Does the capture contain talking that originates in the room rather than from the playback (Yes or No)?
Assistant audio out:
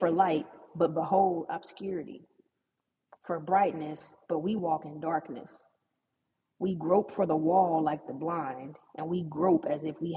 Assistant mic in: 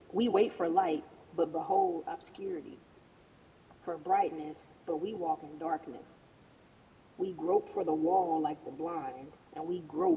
No